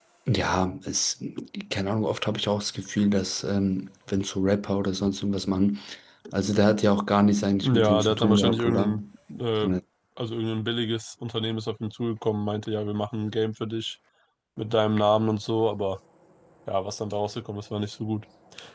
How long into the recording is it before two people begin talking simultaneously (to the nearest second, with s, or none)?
8 s